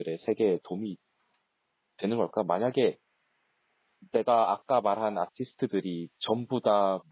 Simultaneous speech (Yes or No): No